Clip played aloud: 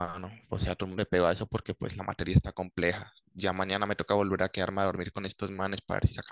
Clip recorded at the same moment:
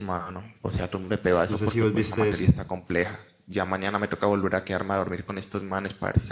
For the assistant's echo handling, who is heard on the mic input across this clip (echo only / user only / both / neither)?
both